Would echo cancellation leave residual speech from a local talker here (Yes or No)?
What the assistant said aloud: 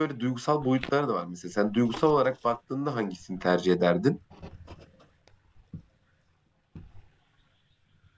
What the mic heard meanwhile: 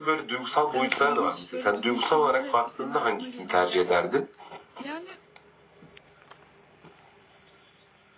Yes